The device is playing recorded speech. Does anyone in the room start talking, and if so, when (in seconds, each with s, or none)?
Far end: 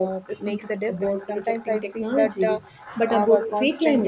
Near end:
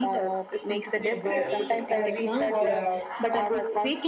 0.9 s